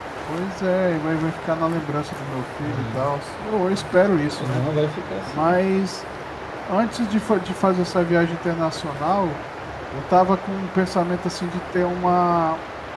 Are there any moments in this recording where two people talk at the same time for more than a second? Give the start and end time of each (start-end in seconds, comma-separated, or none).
none